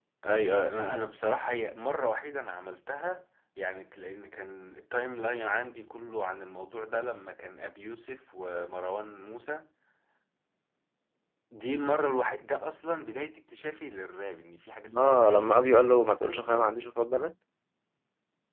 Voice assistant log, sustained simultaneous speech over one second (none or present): present